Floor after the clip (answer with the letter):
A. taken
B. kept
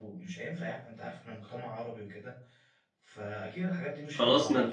A